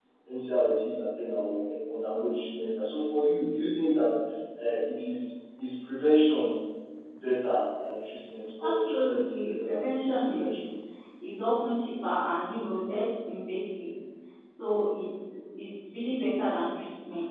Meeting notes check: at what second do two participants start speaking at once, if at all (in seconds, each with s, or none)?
8.6 s